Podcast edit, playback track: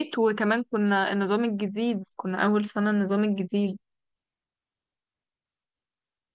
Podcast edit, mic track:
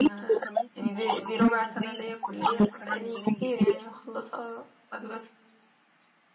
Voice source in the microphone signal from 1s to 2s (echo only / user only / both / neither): both